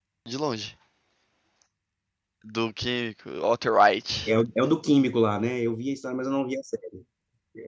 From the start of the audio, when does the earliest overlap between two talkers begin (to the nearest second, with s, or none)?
none